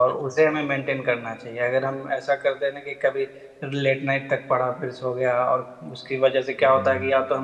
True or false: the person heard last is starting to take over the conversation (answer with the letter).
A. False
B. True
A